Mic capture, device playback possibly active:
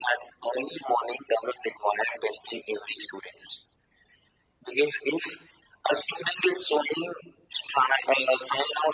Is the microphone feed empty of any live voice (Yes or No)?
Yes